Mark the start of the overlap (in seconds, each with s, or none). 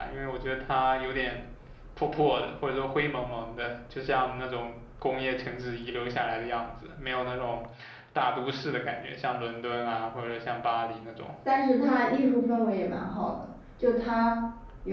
none